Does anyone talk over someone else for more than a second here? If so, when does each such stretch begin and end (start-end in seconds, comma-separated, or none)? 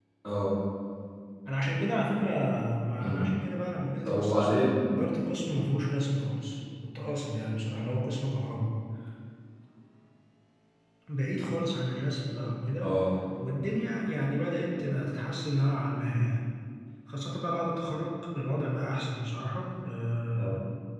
none